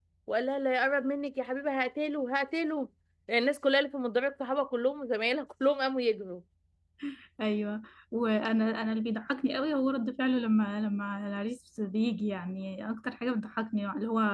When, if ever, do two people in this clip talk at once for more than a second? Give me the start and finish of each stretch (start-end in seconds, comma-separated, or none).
none